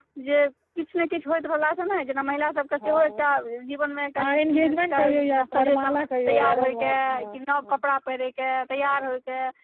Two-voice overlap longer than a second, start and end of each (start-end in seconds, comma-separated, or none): 4.2-7.8